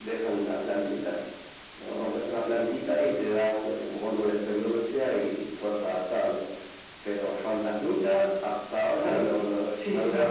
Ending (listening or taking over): taking over